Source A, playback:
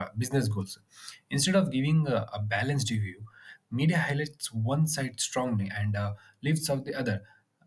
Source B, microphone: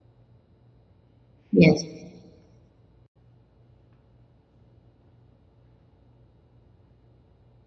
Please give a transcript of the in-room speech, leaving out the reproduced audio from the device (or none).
Yes.